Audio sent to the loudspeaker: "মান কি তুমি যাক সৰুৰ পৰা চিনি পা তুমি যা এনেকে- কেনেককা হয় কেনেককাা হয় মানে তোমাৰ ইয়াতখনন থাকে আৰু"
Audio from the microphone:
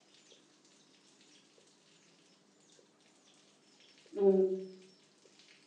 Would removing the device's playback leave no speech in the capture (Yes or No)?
No